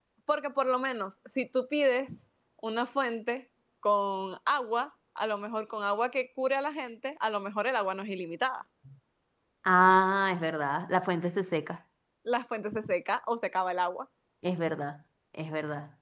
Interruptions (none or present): none